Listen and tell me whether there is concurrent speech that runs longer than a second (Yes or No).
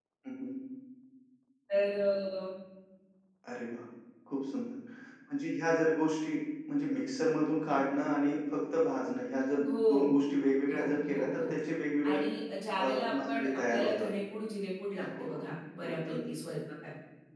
Yes